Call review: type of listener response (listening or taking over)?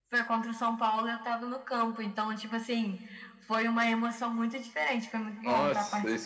taking over